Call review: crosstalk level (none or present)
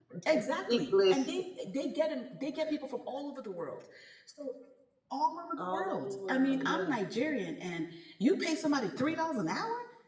present